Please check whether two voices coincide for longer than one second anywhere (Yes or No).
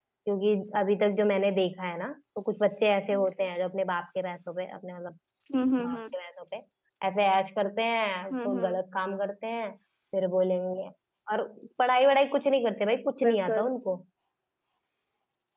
No